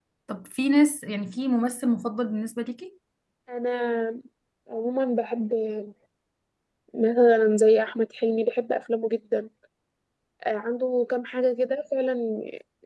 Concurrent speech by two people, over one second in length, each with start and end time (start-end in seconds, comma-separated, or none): none